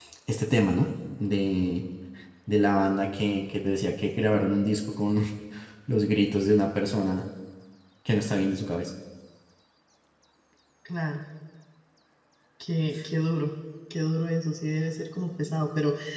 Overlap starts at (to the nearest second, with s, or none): none